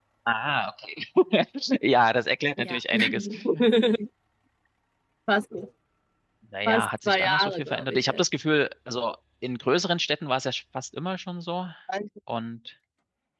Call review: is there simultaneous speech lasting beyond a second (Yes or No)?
Yes